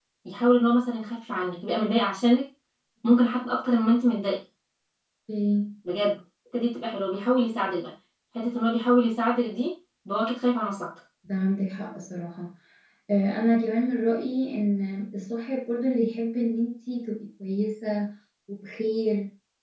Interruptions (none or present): none